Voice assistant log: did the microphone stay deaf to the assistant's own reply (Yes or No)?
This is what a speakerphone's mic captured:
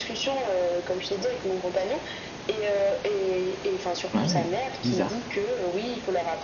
No